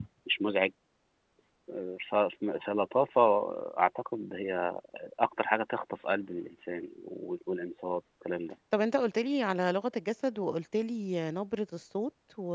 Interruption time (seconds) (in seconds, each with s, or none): none